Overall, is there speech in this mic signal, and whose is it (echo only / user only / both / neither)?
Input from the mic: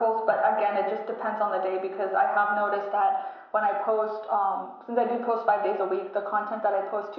echo only